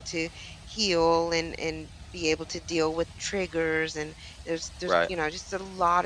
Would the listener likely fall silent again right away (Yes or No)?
Yes